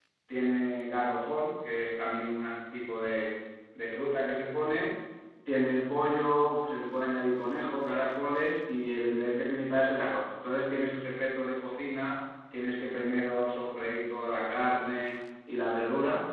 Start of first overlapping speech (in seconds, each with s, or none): none